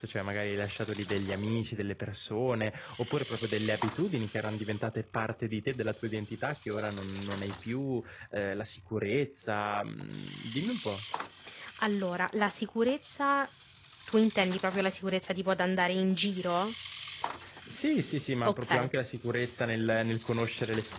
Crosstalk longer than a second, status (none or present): none